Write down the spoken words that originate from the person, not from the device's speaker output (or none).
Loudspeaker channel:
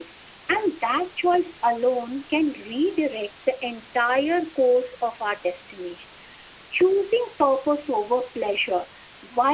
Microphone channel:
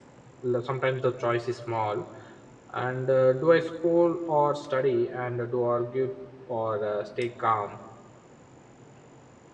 L- sometimes the choice is small and uh, do i scroll or study and uh, do argue or uh, stay calm